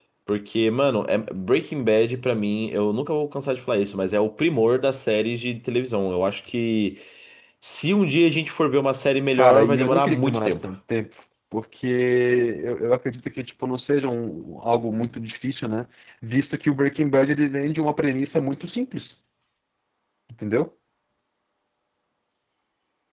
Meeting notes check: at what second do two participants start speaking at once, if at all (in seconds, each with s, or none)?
9.3 s